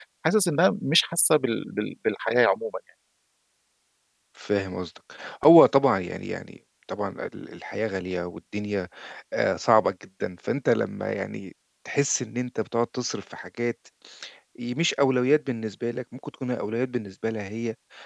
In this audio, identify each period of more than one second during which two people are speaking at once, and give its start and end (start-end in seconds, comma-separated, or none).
none